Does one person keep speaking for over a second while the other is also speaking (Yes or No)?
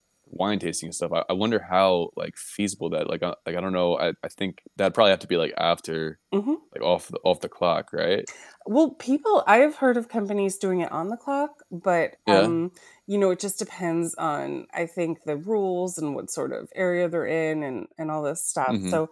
No